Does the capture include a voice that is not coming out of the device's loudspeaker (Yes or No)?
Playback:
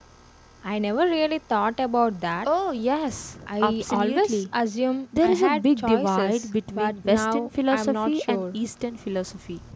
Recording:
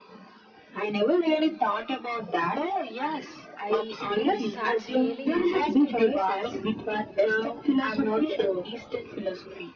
Yes